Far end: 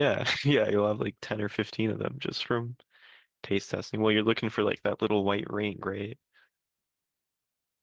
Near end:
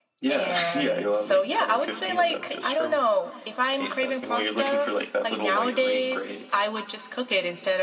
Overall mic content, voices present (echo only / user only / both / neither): both